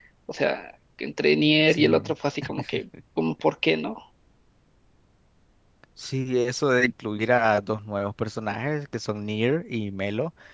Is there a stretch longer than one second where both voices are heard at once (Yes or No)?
No